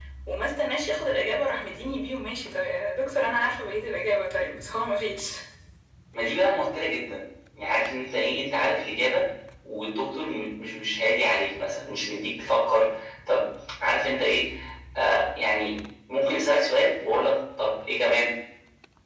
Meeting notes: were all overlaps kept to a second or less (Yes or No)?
Yes